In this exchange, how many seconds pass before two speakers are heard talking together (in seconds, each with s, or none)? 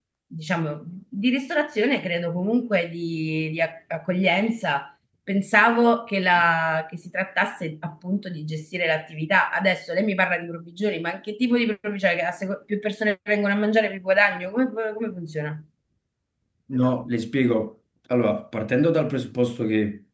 none